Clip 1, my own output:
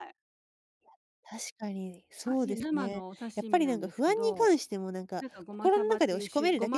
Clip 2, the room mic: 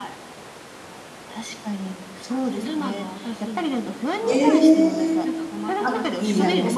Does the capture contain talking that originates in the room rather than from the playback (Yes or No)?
Yes